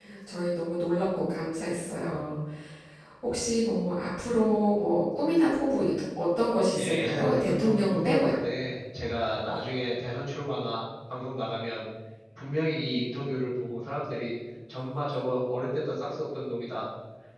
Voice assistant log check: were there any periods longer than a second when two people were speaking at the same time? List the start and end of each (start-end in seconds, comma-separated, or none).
6.8-8.3